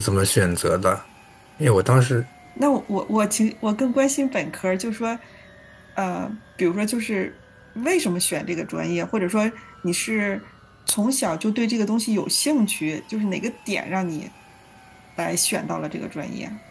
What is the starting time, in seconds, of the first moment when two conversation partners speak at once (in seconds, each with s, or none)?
none